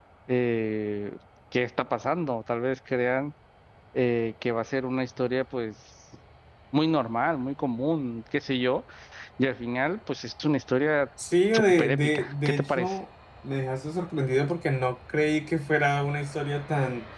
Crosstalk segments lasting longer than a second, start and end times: 11.5-13.0

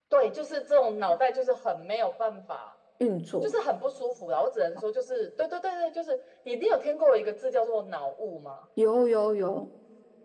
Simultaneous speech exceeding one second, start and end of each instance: none

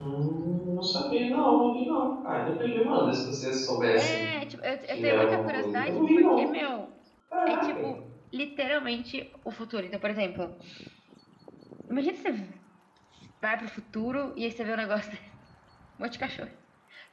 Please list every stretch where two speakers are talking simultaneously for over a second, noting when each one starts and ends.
4.9-6.4

